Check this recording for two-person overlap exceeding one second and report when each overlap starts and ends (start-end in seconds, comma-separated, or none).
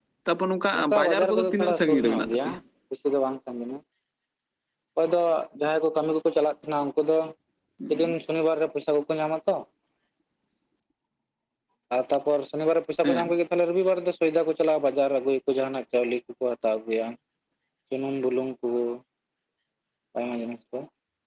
0.8-2.5